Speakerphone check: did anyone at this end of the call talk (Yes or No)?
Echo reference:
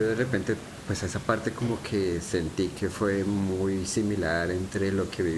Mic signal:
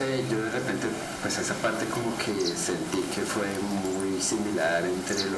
No